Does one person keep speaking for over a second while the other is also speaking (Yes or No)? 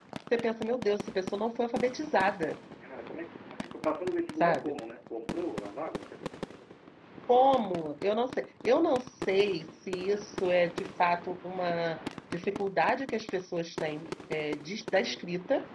No